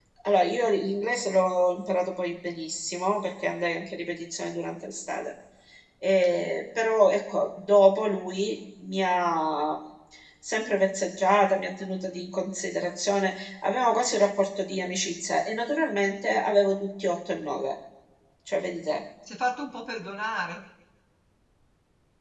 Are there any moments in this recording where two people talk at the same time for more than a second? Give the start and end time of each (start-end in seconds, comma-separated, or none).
none